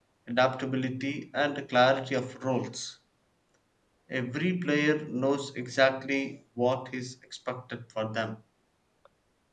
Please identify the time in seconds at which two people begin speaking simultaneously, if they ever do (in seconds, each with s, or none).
none